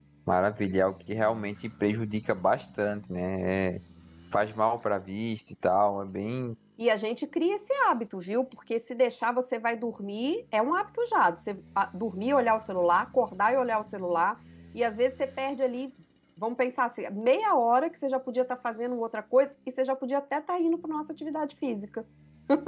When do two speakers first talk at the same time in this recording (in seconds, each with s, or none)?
none